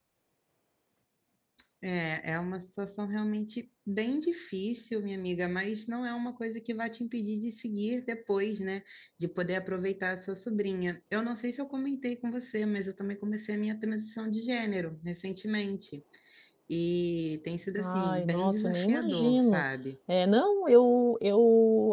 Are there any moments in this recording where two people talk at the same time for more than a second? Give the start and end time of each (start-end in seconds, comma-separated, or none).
17.8-19.6